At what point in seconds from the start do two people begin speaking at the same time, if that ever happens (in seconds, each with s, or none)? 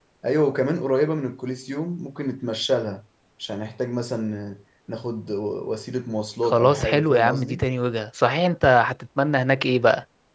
6.4 s